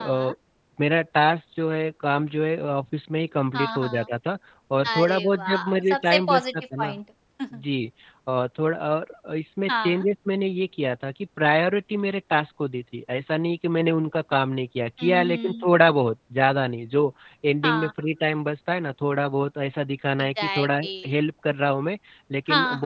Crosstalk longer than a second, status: present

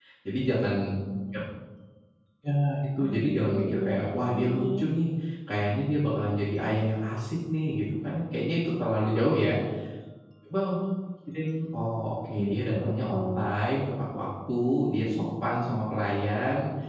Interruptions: present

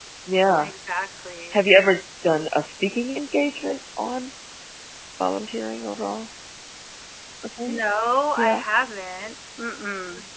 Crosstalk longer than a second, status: none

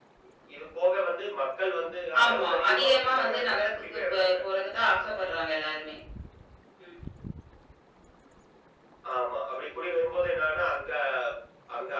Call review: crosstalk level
present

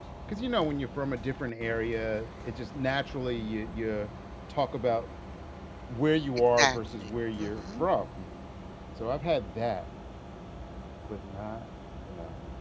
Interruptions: present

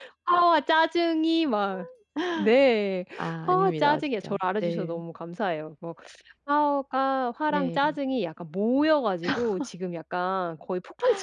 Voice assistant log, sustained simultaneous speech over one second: present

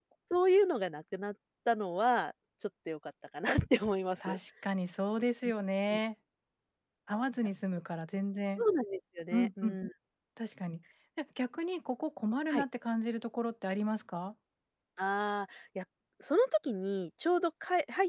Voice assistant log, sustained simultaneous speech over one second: none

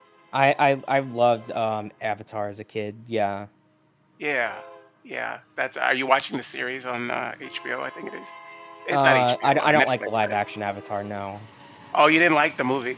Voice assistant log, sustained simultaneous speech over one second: present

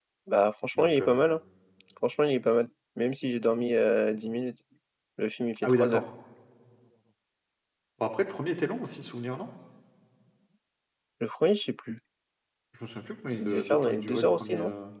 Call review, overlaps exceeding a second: present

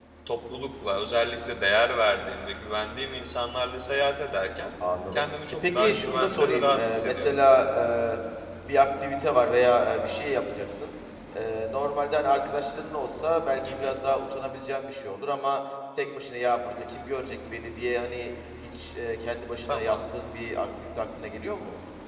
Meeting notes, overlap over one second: present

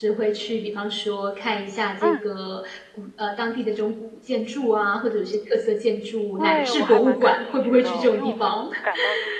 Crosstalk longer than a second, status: present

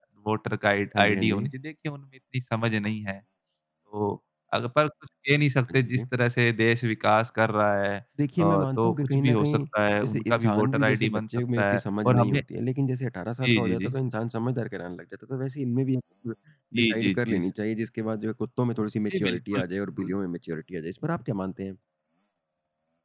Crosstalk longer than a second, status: present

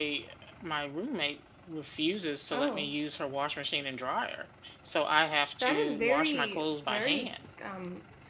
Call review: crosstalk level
present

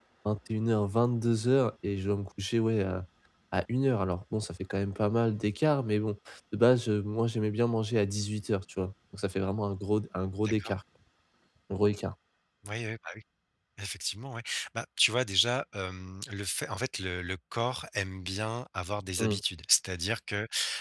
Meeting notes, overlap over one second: none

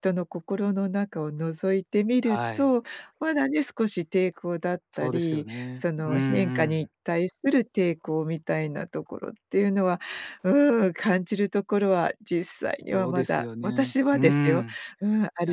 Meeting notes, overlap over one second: present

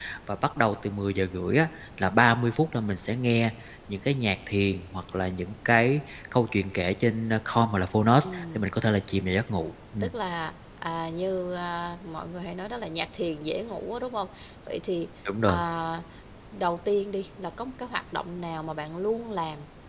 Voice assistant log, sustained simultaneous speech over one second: none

